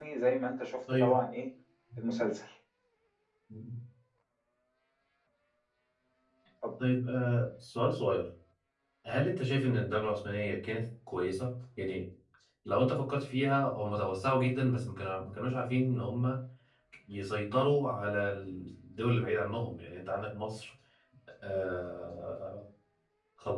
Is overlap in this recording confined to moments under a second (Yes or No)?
Yes